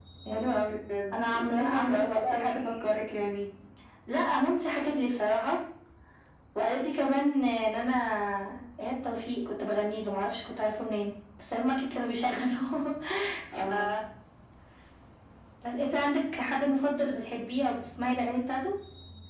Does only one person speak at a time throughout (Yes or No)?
No